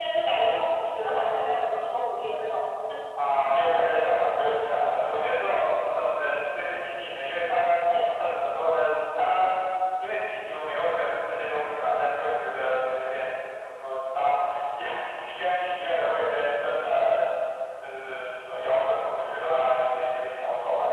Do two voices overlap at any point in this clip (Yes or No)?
No